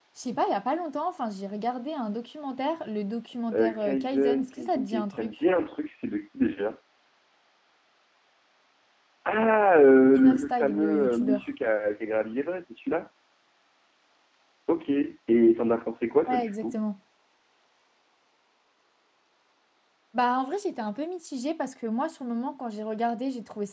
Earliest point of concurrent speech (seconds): 3.5 s

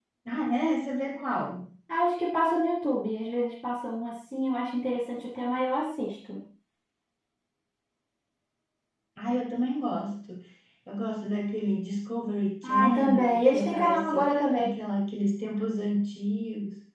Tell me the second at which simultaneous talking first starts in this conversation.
12.6 s

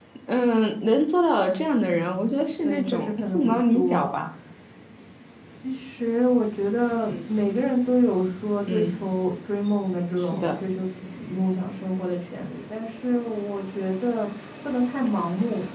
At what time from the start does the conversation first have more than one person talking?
2.6 s

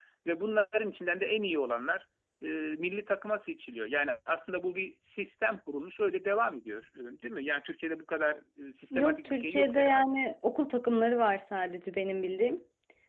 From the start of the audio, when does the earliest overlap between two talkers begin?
8.9 s

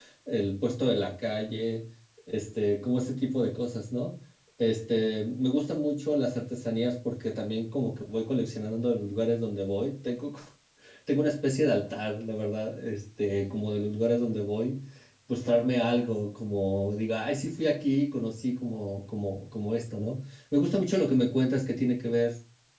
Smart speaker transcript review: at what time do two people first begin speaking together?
none

